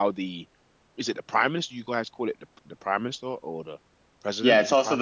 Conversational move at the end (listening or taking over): taking over